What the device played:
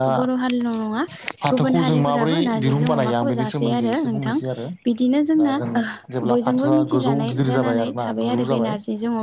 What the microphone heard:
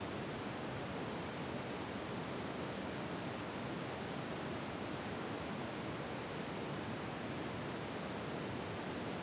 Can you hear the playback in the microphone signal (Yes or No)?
No